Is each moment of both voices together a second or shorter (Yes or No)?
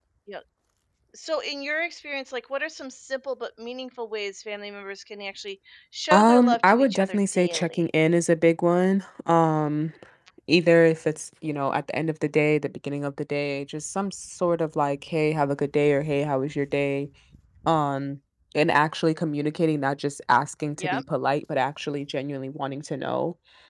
No